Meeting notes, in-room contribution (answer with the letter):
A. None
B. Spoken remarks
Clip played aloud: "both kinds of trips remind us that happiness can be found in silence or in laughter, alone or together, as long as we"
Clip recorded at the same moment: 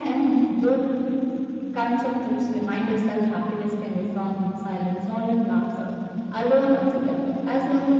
A